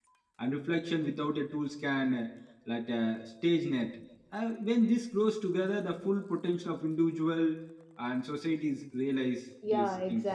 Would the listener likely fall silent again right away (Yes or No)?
No